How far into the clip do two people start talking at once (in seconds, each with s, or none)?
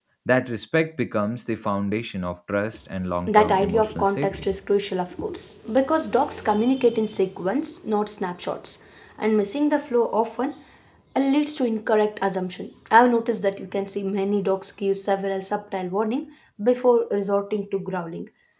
3.3 s